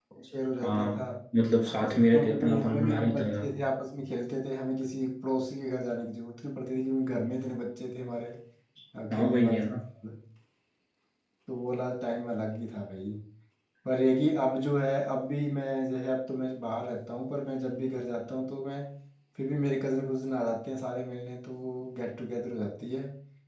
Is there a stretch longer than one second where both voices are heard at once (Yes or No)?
Yes